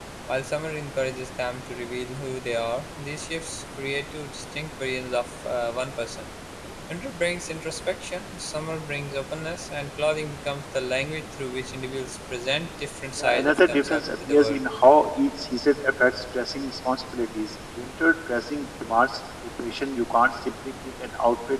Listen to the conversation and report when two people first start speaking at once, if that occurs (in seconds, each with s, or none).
13.2 s